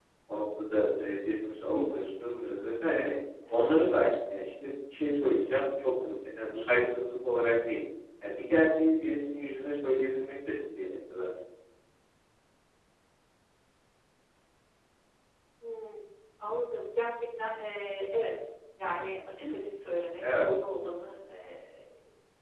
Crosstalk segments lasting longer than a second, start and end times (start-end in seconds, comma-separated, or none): none